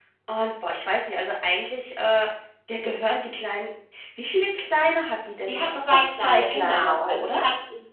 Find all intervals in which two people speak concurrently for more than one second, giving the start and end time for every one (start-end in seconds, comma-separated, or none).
5.5-7.4